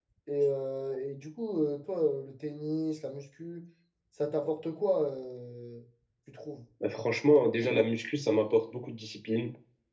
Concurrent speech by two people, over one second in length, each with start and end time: none

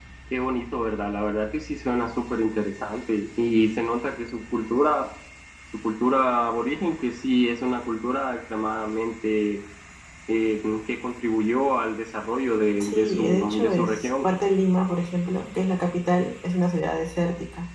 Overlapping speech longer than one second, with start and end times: 12.8-14.3

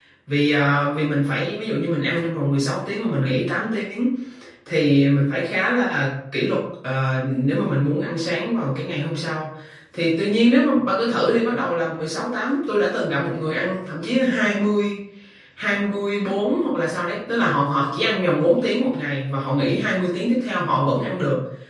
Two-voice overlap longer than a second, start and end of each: none

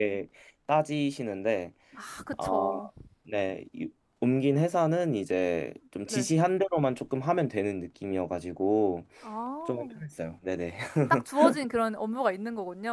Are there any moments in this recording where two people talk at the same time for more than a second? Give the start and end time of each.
none

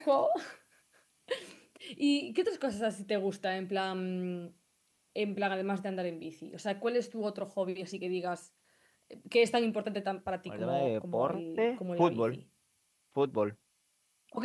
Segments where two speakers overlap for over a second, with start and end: 10.5-12.4

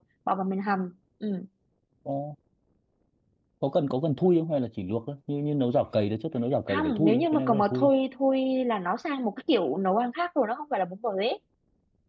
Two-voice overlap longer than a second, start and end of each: 6.7-7.9

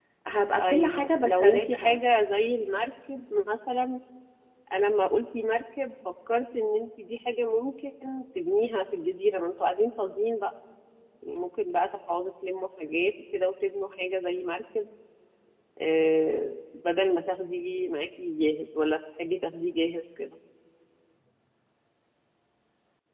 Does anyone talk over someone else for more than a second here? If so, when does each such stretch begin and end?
0.6-2.0

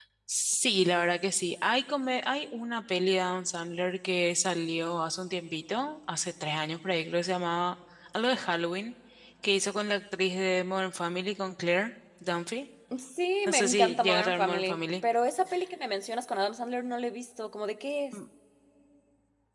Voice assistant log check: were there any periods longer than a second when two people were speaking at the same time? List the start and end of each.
13.5-14.8

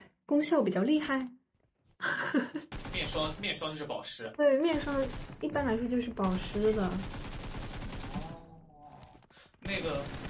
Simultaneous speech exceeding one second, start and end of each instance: none

